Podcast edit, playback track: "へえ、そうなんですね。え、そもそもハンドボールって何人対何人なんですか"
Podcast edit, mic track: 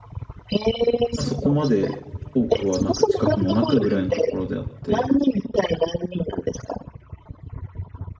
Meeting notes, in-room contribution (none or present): present